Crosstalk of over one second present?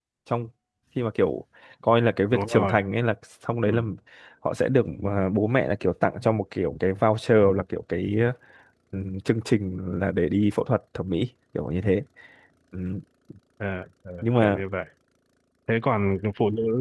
No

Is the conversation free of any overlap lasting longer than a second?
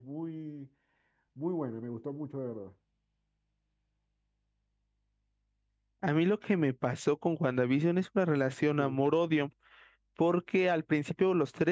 Yes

